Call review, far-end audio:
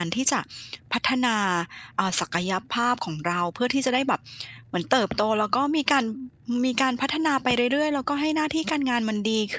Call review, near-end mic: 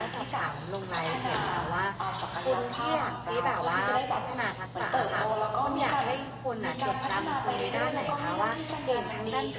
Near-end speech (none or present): present